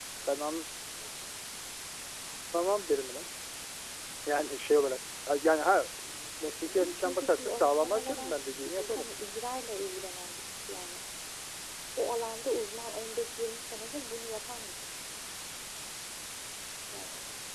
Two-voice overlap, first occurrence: 7 s

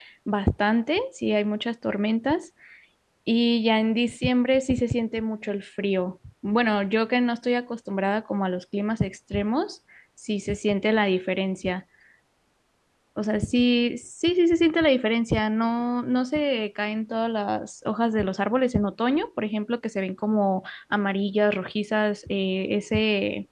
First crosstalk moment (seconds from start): none

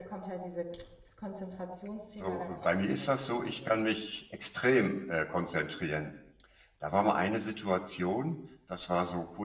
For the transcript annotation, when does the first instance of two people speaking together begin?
2 s

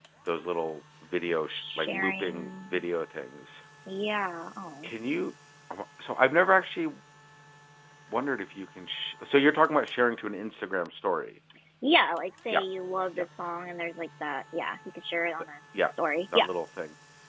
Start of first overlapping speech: 1 s

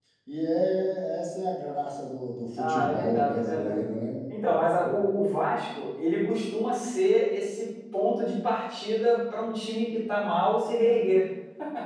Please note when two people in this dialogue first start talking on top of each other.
3 s

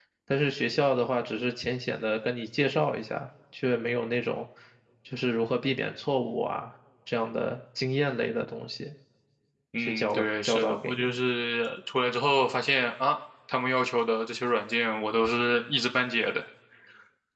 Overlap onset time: 10 s

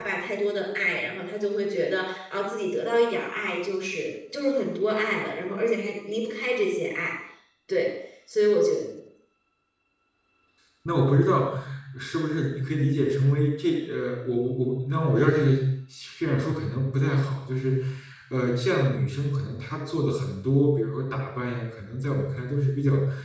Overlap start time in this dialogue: none

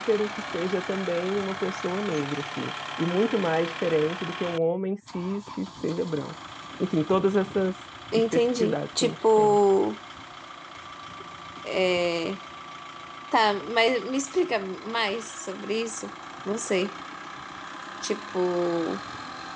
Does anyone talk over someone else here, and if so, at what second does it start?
8 s

